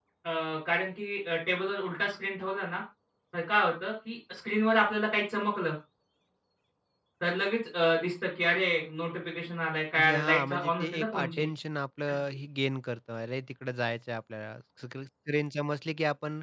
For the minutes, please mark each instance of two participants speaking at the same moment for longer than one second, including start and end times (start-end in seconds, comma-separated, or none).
10.0-11.4